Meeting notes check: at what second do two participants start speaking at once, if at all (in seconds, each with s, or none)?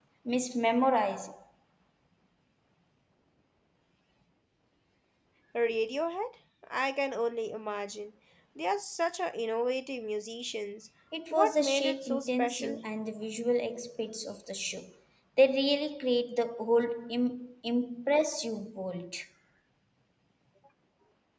11.3 s